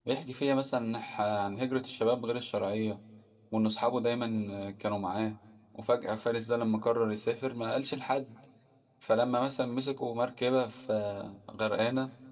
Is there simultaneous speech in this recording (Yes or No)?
No